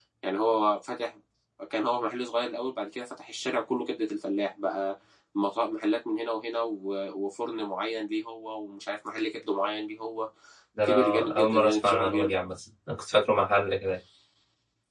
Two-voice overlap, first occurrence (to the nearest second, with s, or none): 11 s